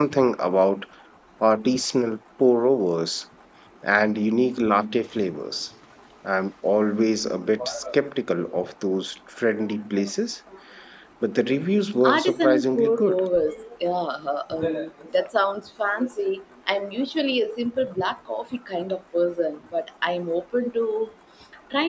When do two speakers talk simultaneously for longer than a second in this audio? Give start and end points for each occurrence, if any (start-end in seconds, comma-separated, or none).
12.0-13.2